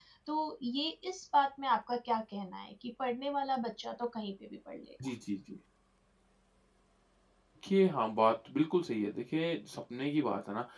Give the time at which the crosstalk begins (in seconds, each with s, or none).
none